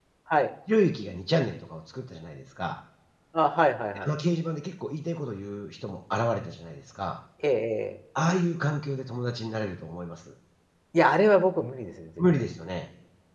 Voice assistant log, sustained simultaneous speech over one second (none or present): none